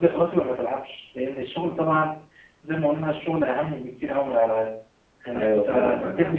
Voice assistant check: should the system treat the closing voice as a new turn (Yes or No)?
Yes